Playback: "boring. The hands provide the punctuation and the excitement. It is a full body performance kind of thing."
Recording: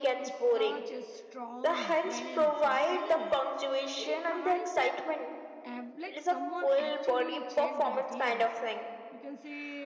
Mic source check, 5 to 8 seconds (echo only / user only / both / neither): both